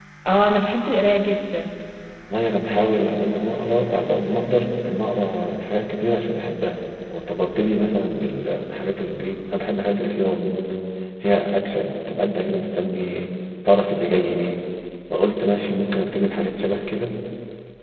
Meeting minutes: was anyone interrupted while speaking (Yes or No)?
No